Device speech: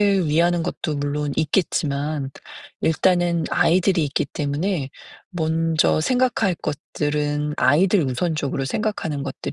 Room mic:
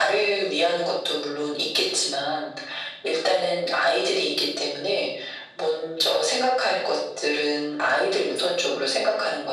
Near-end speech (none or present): none